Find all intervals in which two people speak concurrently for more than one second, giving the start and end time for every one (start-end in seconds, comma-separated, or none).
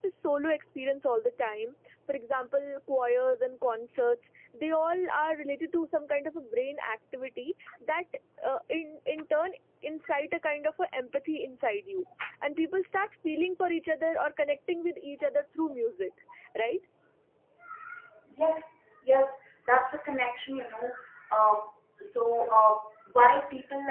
none